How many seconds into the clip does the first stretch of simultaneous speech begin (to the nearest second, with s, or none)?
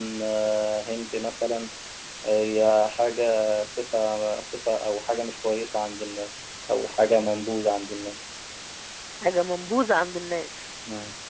none